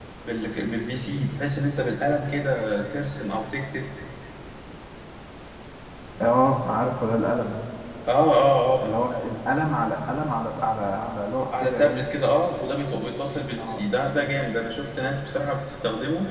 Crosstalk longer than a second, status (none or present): none